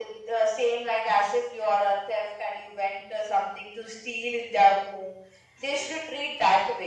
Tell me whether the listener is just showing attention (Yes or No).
Yes